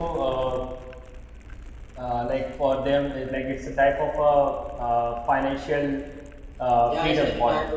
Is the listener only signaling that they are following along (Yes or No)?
No